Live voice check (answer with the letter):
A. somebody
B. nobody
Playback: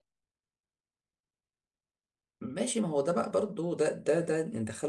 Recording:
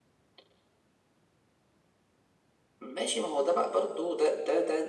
B